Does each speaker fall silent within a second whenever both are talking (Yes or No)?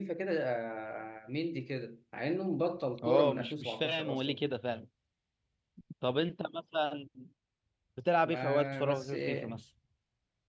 No